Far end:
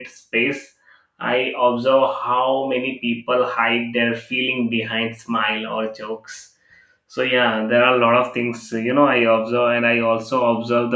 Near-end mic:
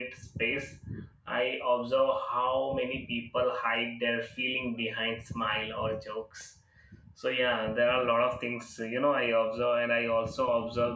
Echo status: present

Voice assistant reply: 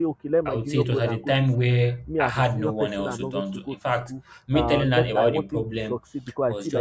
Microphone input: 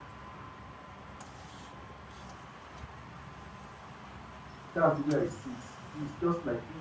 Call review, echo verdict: none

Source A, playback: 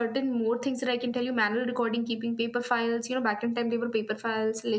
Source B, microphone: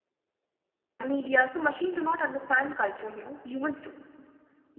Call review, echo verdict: none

